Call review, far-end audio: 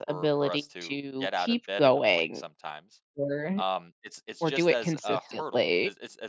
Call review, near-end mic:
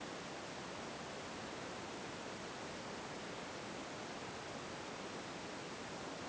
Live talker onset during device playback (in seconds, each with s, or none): none